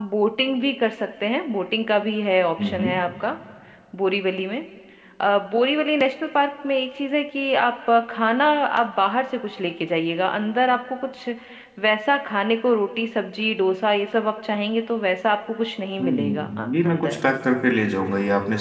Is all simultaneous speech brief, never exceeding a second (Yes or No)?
No